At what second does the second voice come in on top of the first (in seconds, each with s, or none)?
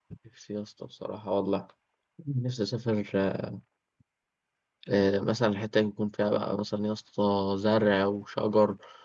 none